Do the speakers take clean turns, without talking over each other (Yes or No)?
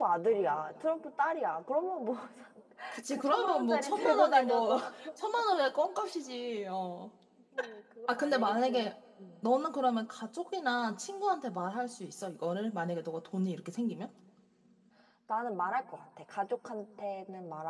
No